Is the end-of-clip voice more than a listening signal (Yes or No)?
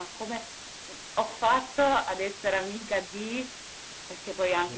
No